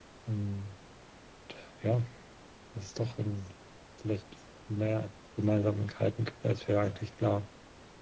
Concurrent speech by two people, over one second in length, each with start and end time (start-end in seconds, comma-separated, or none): none